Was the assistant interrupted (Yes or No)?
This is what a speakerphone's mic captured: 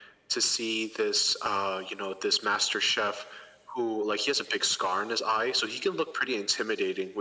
No